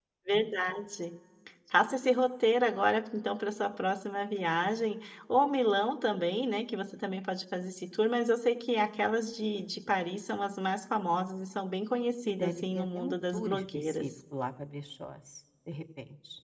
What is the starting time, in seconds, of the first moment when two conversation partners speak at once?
12.2 s

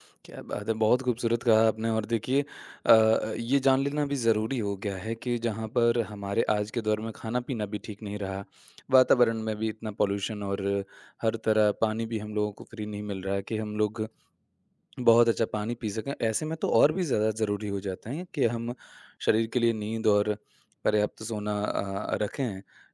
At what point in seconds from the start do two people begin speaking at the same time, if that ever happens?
none

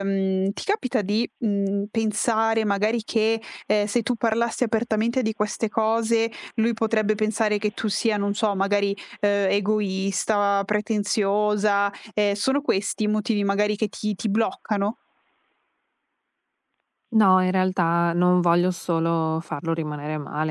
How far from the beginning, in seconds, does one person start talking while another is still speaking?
none

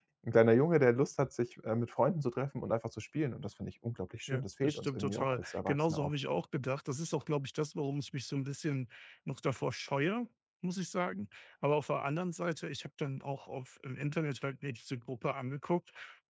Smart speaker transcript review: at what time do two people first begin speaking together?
4.3 s

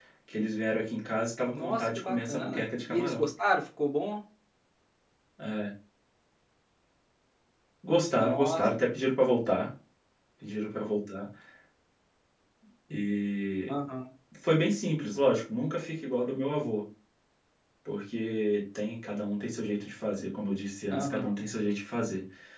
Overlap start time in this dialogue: 1.5 s

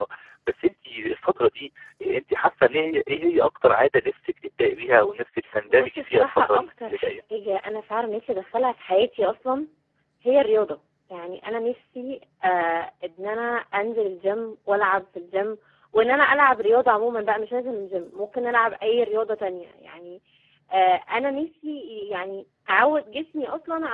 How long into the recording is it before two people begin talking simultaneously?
5.7 s

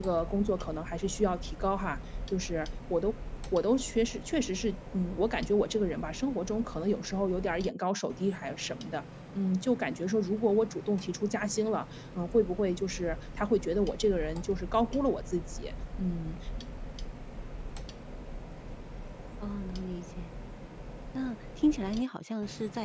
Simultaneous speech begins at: none

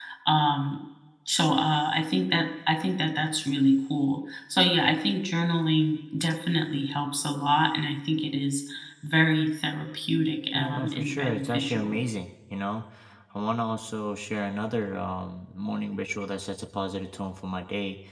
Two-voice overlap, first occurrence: 10.5 s

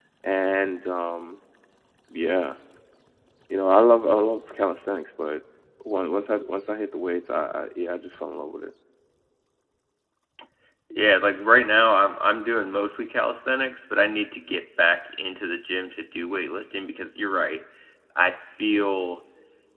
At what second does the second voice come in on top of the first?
none

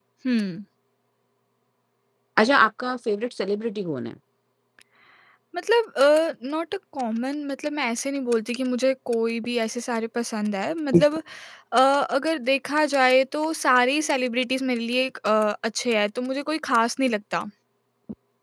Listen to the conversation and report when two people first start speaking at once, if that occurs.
none

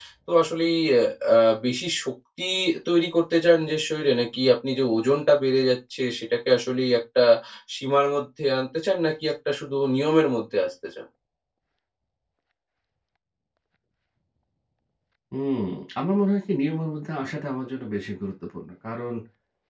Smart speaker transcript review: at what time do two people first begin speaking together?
none

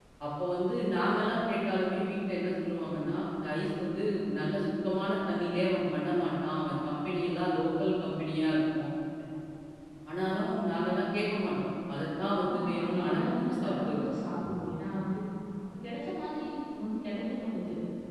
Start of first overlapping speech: 12.5 s

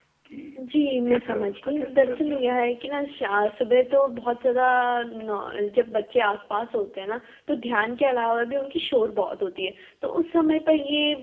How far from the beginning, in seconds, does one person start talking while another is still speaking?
1.1 s

